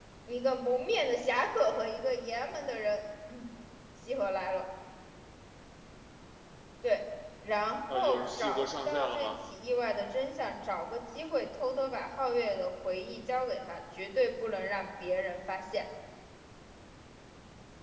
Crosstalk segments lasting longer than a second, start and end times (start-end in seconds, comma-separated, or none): 7.9-9.3